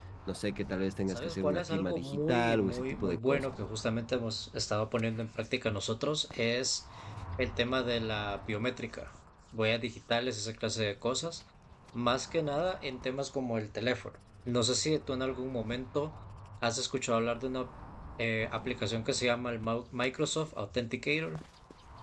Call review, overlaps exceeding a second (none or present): present